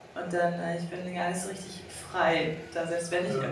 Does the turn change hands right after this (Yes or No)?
No